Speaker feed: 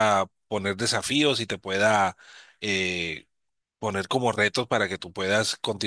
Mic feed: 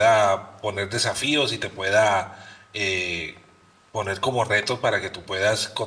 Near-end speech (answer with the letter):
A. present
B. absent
B